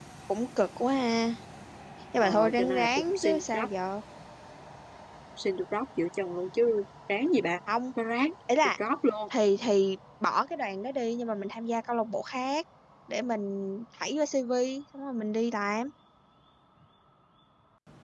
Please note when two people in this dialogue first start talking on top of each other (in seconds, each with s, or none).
2.2 s